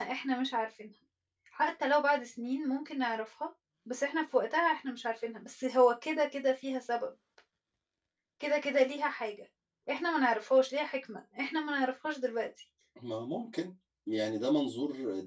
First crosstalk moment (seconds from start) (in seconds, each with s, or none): none